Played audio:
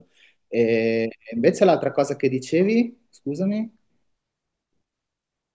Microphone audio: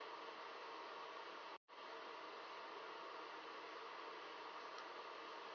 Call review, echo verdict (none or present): none